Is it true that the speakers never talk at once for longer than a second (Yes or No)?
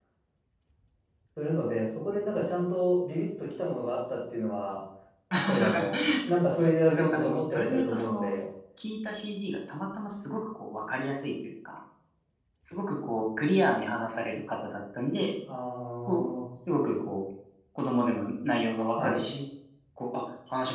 No